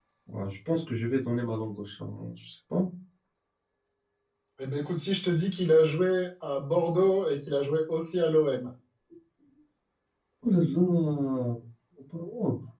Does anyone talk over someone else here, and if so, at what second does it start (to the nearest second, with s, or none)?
none